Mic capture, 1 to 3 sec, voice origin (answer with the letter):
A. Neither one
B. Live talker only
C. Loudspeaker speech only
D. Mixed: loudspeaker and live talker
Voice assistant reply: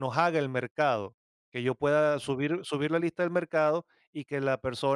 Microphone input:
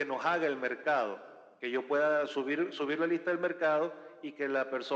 C